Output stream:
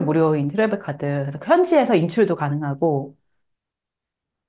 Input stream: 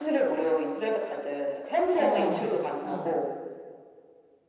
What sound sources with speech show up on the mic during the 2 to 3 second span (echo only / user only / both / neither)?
both